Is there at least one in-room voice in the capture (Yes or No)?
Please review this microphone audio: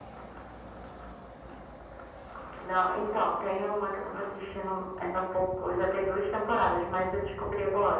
No